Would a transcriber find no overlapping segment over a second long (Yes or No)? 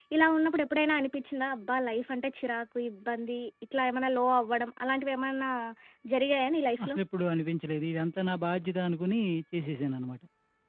Yes